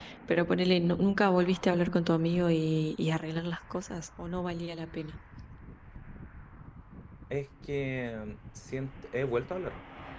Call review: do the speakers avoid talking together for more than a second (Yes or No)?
Yes